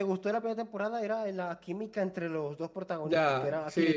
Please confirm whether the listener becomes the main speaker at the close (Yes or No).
Yes